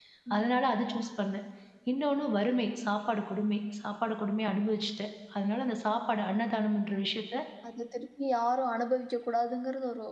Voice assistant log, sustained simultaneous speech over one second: none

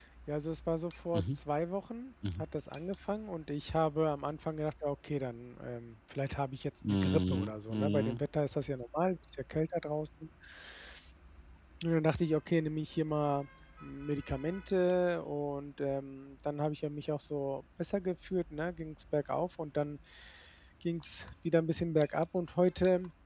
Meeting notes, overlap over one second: present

